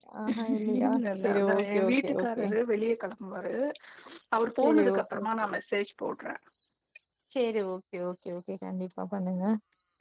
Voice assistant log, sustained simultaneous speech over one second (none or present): present